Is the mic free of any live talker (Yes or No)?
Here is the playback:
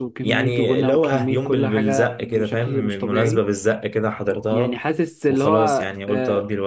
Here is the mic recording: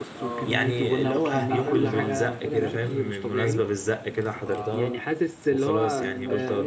No